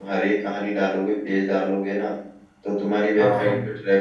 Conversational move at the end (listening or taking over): listening